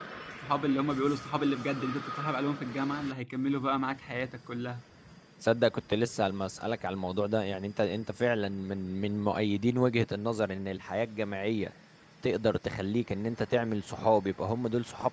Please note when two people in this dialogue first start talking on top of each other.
none

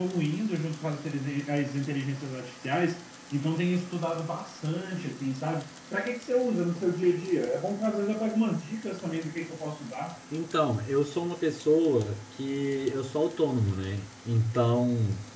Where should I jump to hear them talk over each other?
none

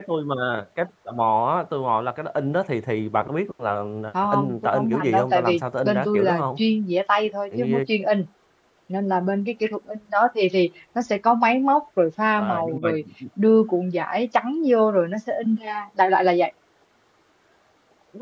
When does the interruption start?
4.3 s

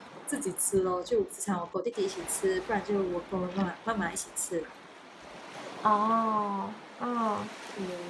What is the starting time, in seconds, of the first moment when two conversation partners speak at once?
none

